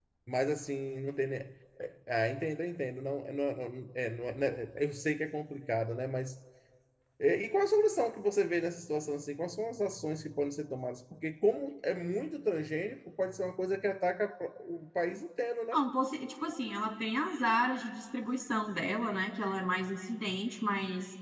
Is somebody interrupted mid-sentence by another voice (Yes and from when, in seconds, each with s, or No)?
No